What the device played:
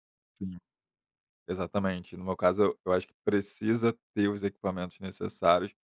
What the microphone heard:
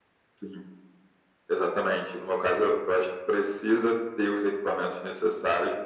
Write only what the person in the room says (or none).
none